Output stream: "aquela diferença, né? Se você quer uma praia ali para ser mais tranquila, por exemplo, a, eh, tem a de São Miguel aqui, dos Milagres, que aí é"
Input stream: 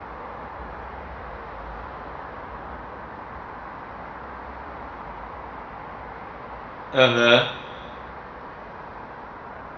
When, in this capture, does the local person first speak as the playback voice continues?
6.9 s

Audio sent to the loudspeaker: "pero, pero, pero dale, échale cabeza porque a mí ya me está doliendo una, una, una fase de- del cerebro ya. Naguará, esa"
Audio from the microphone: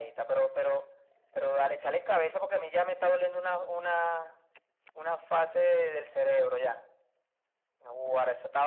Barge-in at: none

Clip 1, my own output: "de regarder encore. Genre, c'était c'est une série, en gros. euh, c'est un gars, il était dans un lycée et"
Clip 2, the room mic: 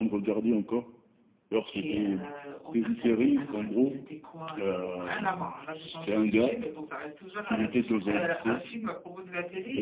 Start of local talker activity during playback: 1.7 s

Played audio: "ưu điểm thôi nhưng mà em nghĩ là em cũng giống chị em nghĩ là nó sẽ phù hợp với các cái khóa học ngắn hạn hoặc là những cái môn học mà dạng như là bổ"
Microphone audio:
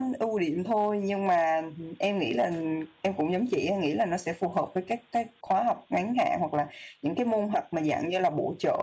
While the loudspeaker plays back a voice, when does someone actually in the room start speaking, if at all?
none

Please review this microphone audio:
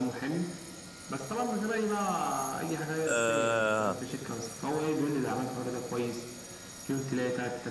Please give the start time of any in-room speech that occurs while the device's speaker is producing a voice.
3.1 s

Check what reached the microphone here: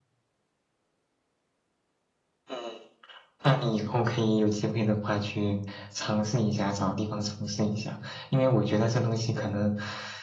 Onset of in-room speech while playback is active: none

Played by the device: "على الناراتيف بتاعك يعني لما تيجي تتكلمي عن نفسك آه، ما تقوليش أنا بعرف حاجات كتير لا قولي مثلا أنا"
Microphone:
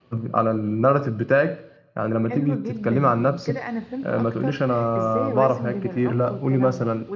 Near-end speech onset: 2.2 s

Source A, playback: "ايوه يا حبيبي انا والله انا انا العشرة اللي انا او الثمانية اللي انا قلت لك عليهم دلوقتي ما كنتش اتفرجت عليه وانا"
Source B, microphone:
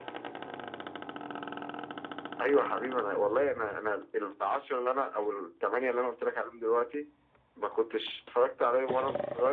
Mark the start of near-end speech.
none

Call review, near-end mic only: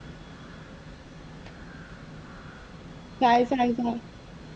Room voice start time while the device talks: 3.2 s

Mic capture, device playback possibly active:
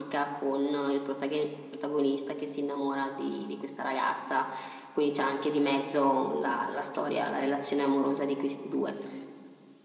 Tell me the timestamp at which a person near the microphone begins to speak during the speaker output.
none

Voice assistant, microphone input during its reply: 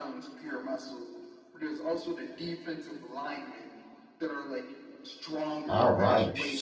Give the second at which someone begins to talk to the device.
5.7 s

